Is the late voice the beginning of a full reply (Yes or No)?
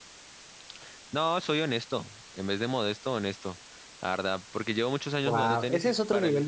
Yes